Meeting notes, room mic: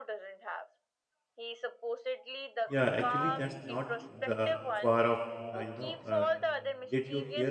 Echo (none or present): present